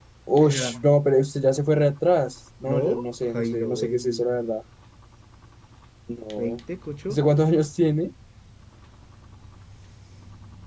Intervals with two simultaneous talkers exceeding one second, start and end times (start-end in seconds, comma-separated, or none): 2.7-4.3